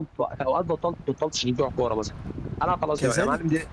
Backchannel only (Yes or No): No